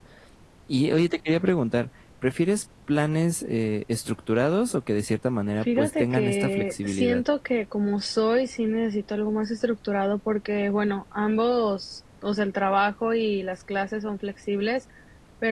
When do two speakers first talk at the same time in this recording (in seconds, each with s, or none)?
5.6 s